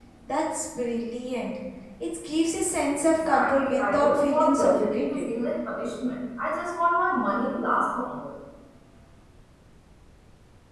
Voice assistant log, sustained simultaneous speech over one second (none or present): present